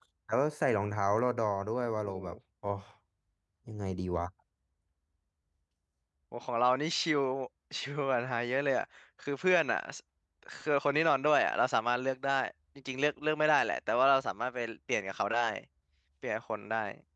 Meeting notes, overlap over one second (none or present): none